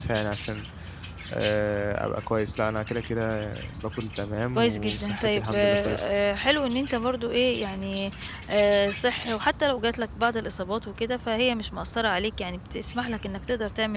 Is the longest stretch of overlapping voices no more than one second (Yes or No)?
No